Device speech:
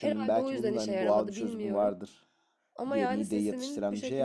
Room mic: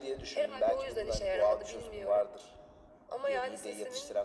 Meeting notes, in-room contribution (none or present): none